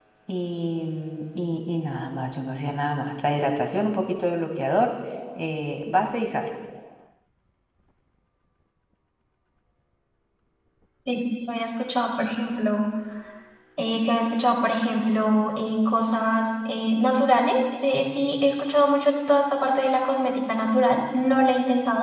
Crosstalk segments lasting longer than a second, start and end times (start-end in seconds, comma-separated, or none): none